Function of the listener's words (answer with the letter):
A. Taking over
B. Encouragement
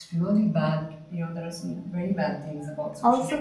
A